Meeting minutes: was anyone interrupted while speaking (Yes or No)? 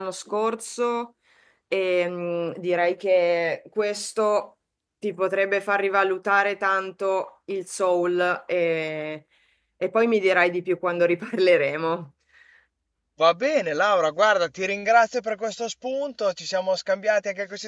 No